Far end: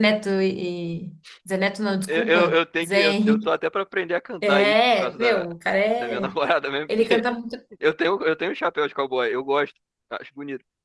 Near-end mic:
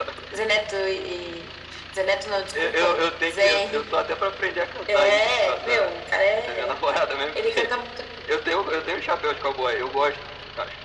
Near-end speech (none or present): none